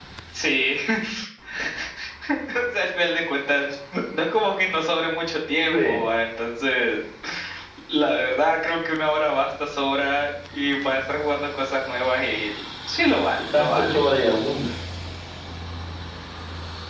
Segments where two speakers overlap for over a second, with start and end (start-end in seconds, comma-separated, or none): none